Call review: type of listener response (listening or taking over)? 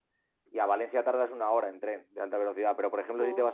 listening